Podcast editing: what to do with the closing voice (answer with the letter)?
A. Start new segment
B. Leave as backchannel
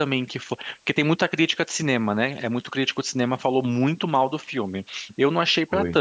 B